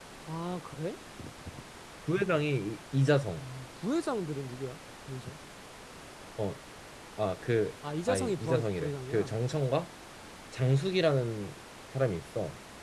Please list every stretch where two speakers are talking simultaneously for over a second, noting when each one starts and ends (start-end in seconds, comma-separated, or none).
8.1-9.3